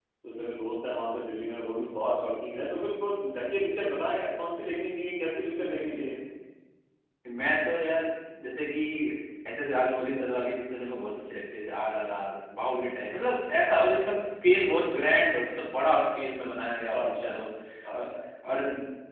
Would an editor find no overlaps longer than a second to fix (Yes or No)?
Yes